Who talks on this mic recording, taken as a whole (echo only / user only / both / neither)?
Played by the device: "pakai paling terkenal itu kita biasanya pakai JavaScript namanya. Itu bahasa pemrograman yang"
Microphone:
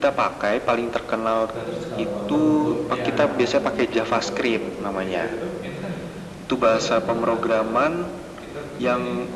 both